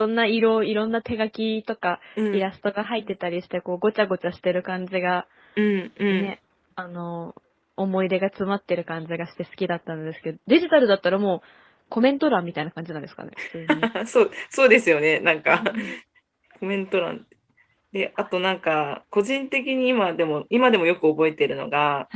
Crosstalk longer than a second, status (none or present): none